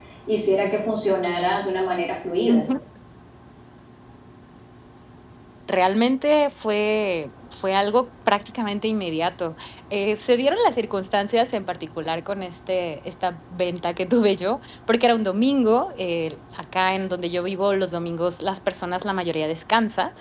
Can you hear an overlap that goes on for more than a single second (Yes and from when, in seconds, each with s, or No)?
No